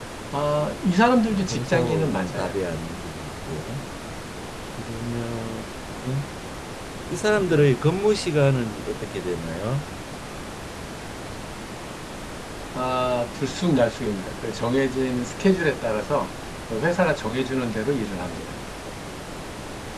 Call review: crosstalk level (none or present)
present